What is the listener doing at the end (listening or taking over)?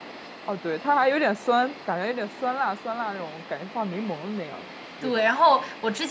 taking over